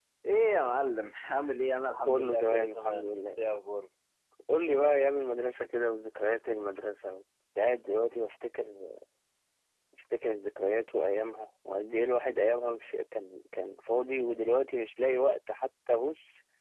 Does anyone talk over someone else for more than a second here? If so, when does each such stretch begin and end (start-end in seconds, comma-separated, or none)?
2.0-3.2